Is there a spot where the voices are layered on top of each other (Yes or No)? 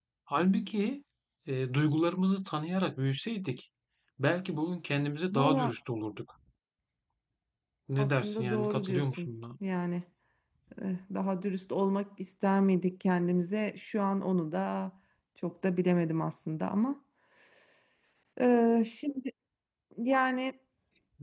Yes